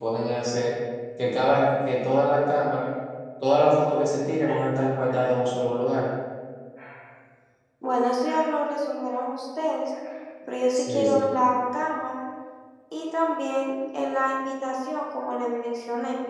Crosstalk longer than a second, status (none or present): none